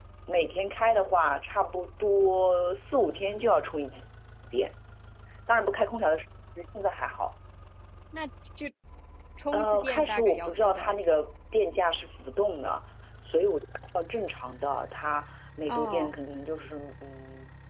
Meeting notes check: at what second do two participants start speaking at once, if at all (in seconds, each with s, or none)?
9.5 s